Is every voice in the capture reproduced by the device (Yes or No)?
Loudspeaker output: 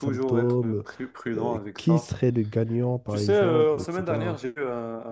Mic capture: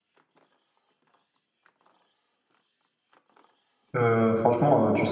No